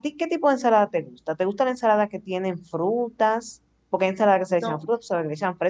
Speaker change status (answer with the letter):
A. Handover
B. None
B